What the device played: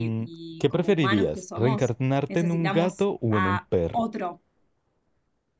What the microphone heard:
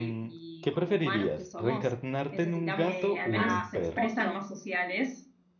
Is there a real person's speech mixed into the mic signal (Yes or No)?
Yes